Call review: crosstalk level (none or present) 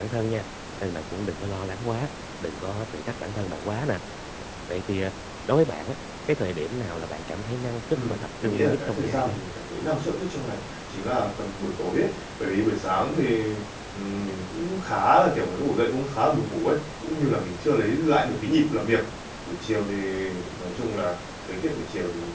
present